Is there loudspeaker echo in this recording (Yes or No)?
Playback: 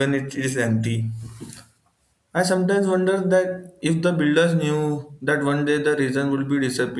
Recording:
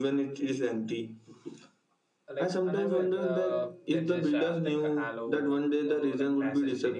Yes